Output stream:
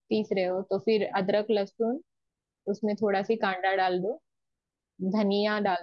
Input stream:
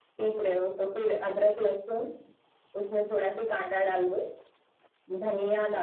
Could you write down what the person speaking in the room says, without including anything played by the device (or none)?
none